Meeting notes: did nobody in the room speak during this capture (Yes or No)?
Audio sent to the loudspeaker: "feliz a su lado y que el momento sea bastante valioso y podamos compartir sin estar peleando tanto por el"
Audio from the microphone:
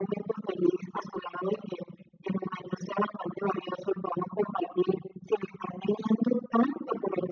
Yes